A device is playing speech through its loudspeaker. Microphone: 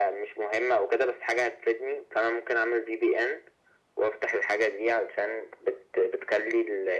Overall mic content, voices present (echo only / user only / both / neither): echo only